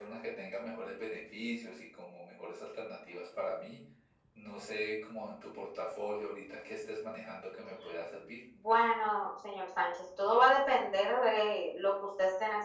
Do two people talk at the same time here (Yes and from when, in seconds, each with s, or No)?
No